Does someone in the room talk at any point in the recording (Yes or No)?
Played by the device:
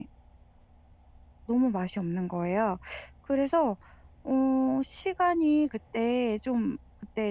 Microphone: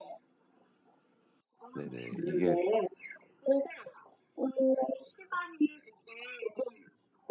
Yes